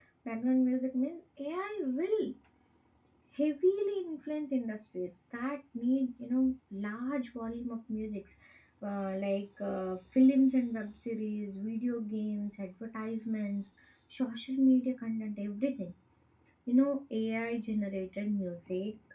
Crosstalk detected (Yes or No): No